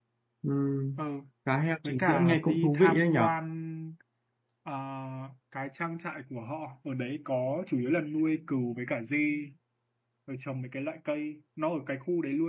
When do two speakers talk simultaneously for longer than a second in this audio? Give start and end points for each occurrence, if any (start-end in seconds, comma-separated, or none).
1.9-3.3